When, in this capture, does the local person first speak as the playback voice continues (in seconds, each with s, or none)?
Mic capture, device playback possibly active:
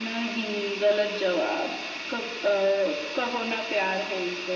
none